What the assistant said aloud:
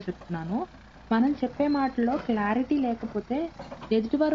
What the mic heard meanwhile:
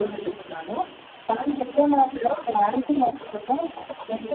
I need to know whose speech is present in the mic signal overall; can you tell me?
echo only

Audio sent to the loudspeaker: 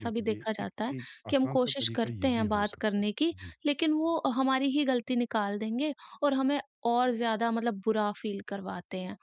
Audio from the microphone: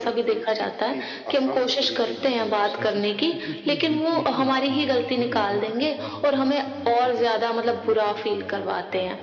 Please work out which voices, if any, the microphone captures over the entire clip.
both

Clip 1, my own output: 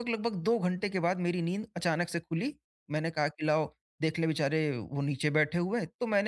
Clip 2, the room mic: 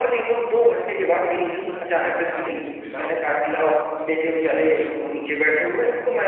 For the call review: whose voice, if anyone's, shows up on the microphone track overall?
both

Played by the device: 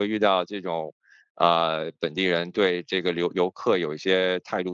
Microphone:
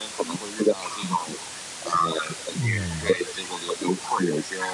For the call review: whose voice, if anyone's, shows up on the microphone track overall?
both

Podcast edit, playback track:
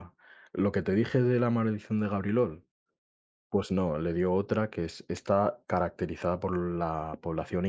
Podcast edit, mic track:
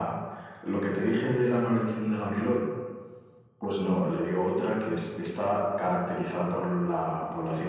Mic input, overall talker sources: echo only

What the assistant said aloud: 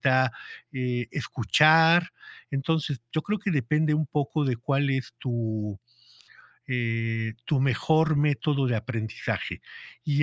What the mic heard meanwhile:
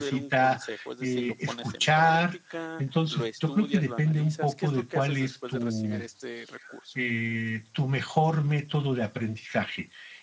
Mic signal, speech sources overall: both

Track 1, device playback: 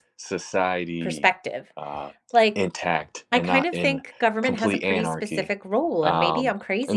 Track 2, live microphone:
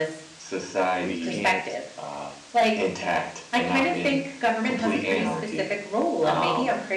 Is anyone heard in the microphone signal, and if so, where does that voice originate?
both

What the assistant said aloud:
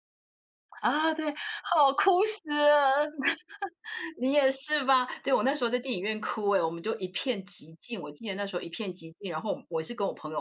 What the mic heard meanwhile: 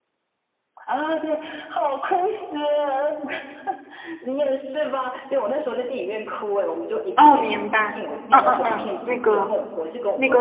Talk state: both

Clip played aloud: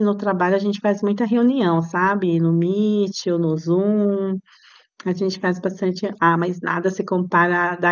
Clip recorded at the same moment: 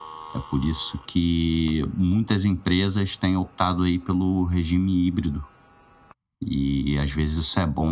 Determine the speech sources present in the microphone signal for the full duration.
user only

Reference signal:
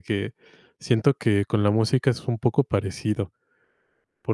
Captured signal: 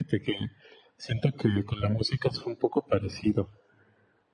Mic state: echo only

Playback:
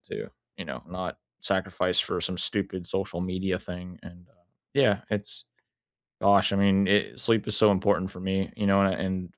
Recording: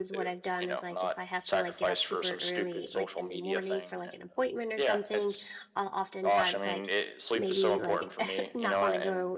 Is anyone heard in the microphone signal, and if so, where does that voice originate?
both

